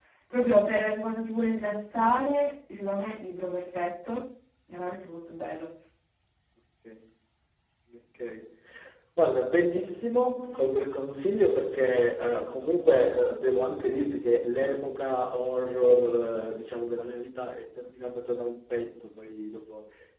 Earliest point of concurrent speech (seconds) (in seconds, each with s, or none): none